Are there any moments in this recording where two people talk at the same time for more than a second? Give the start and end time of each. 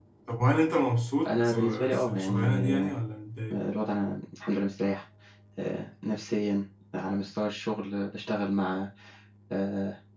1.3-2.9

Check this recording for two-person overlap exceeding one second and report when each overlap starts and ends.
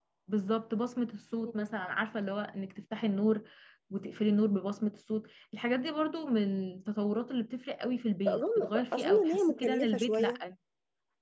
8.3-10.3

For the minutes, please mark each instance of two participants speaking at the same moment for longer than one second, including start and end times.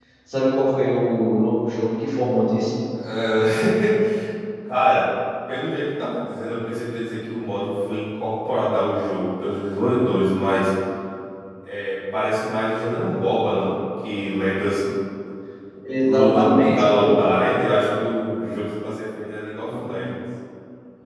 16.0-17.2

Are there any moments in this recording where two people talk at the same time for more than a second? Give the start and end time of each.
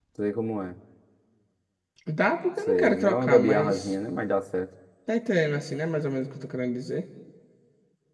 2.7-3.9

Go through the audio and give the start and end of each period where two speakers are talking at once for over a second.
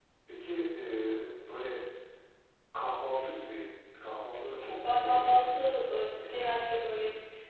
4.6-5.8

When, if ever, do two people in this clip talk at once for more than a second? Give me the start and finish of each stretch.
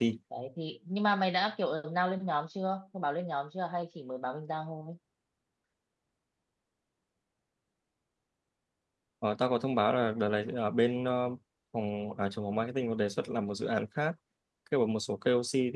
none

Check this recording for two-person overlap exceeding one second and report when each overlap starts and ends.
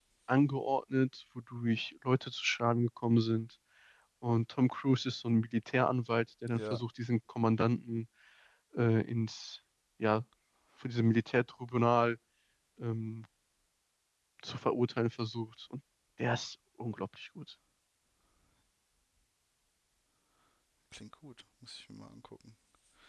none

